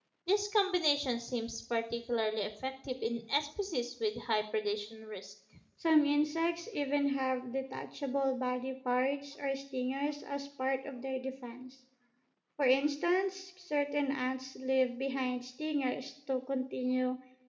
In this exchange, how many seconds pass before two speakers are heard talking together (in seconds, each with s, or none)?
none